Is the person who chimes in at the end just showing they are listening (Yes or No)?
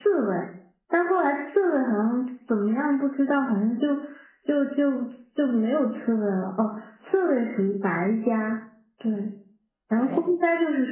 Yes